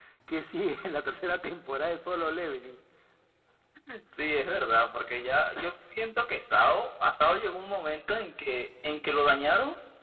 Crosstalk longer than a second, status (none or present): none